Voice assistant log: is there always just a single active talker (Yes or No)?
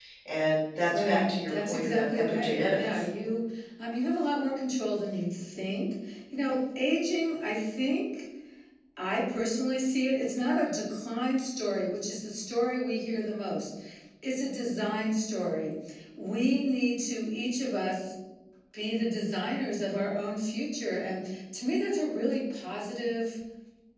No